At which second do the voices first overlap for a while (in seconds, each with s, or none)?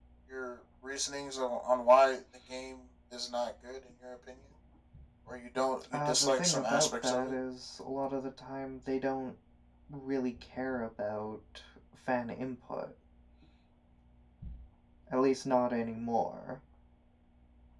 5.9 s